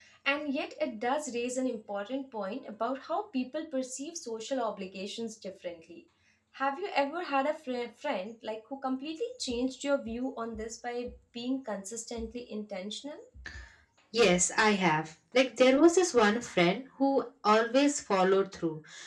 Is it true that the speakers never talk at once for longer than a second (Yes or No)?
Yes